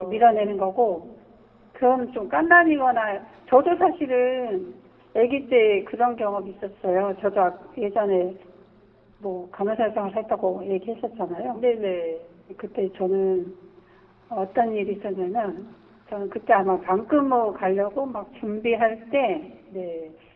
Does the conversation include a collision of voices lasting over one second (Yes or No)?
No